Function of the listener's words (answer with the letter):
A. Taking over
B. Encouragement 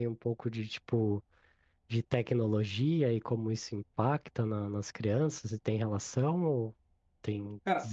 A